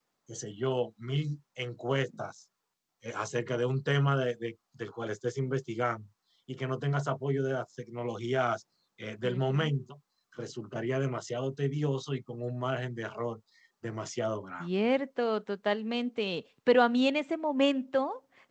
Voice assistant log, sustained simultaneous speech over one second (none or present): none